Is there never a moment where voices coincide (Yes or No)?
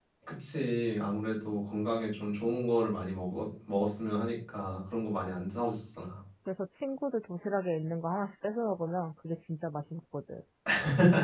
Yes